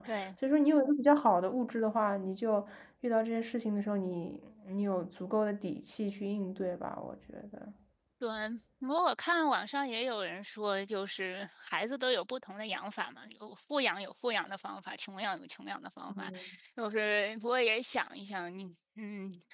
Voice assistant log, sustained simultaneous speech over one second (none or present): none